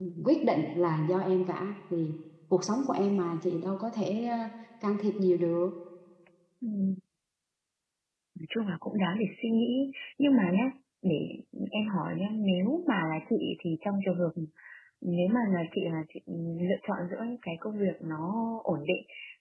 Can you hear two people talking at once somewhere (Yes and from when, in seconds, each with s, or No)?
No